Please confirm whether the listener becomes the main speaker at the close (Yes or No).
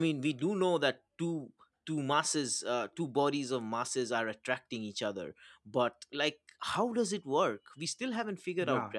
Yes